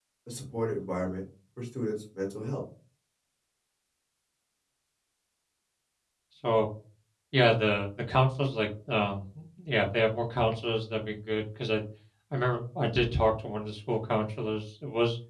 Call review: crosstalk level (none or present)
none